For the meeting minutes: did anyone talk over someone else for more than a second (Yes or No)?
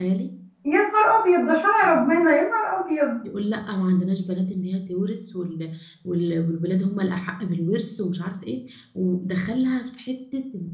No